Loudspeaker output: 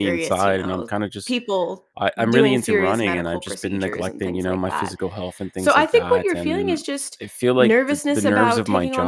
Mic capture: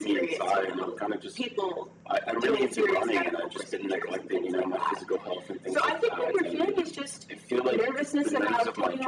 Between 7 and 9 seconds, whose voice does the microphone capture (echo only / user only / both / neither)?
echo only